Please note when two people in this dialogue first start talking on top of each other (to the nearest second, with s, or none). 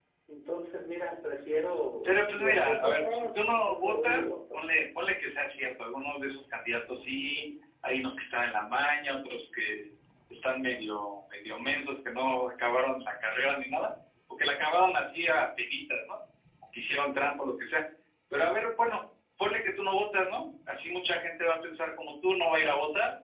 2 s